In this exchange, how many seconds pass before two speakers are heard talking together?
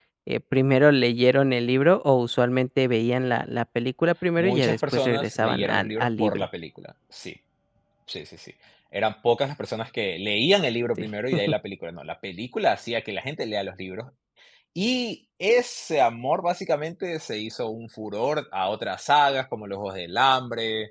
4 s

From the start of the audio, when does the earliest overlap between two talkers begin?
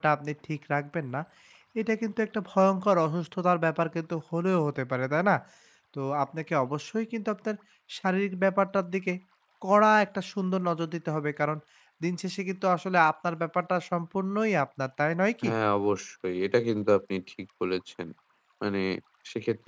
none

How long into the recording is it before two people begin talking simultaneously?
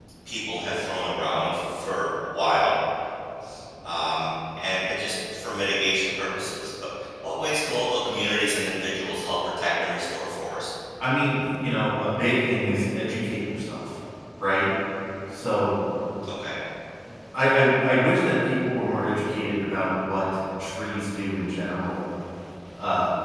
none

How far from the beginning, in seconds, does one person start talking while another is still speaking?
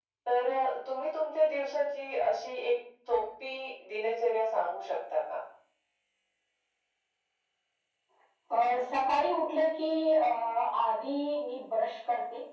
none

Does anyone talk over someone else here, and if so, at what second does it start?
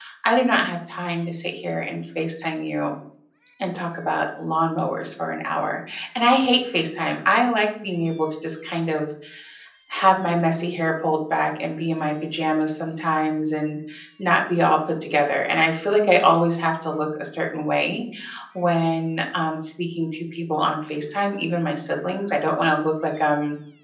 none

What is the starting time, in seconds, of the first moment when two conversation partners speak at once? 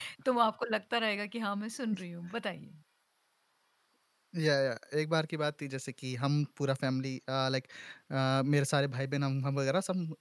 none

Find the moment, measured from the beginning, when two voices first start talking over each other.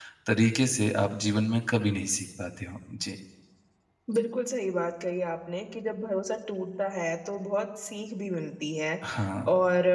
none

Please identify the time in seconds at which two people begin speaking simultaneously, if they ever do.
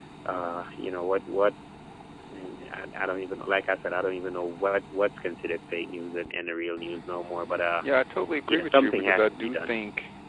8 s

